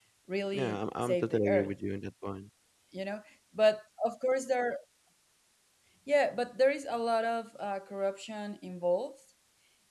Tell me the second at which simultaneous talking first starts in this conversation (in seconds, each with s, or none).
0.5 s